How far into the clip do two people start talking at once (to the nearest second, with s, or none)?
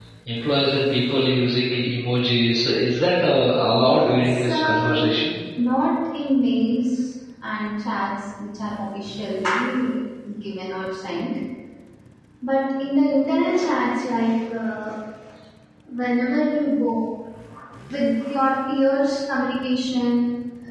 4 s